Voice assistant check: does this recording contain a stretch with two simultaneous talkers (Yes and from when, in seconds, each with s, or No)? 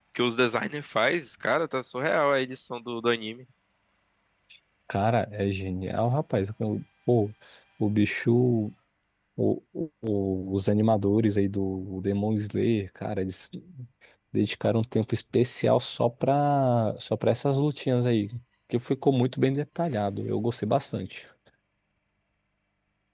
No